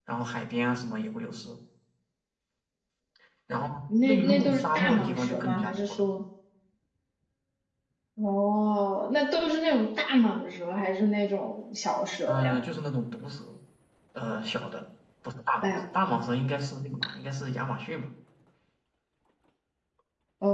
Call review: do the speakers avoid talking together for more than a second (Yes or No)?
No